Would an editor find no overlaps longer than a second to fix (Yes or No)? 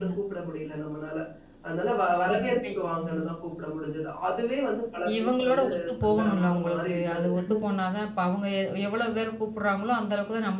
No